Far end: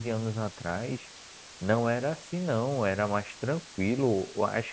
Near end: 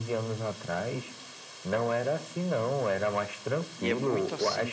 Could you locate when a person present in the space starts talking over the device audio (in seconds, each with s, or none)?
3.8 s